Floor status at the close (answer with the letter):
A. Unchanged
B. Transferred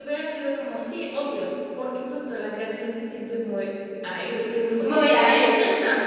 A